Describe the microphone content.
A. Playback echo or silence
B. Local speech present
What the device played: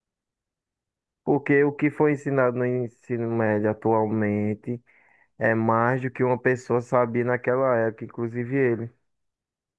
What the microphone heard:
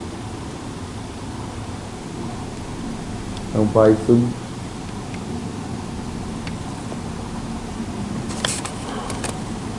B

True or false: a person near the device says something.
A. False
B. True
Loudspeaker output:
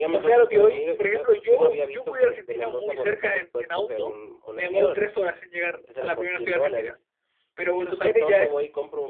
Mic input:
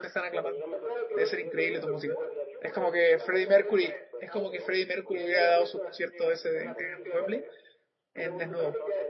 B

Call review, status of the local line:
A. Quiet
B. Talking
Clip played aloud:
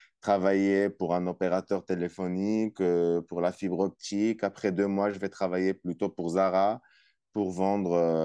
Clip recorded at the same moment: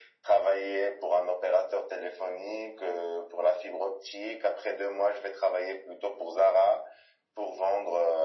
A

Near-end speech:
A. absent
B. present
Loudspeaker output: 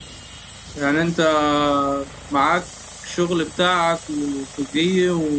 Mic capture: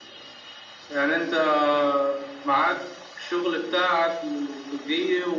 A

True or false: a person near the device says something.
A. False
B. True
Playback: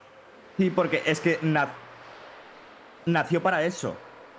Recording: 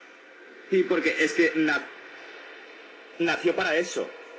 A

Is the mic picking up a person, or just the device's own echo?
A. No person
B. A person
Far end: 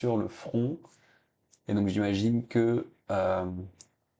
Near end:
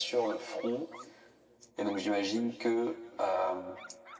A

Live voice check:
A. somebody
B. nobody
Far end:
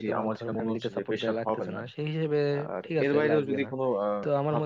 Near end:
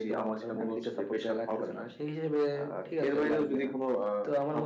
B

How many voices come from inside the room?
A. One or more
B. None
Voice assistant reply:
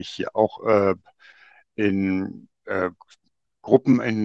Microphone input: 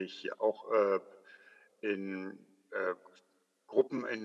B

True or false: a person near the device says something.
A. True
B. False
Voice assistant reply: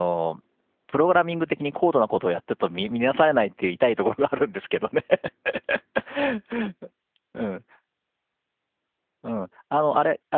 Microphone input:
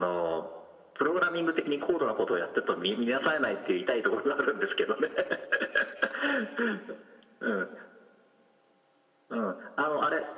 B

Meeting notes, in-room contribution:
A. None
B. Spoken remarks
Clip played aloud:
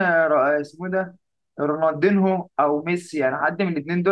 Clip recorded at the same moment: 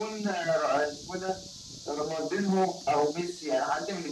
A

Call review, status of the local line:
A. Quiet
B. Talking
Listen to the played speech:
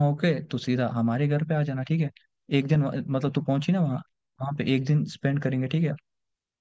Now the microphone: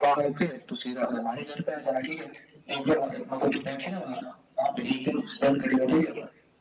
A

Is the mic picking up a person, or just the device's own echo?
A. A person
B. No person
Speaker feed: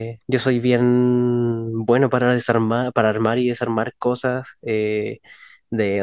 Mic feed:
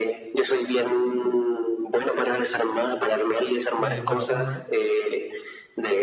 A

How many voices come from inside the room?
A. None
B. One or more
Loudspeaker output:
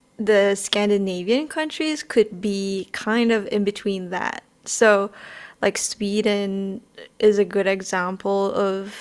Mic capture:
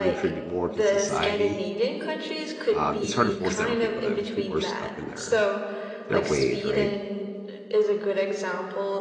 B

